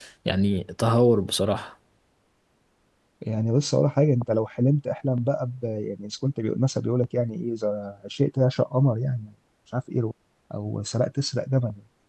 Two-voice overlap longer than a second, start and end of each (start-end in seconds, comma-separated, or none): none